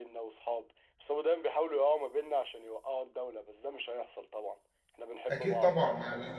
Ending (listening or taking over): taking over